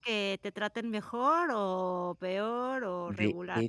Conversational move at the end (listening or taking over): taking over